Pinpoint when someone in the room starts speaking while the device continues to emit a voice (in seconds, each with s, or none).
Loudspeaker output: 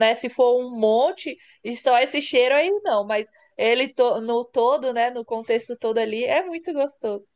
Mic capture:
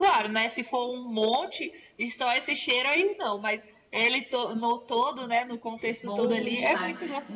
6.0 s